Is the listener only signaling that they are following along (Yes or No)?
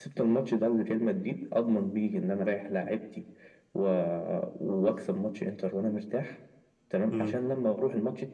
Yes